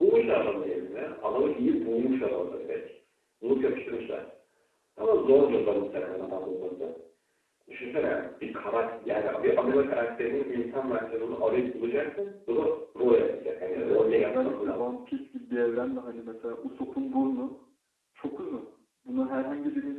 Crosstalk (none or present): present